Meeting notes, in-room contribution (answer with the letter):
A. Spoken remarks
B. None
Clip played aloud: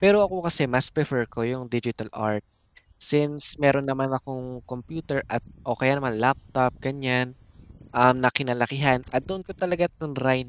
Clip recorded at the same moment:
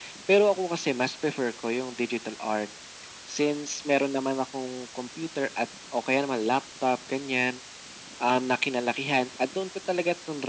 B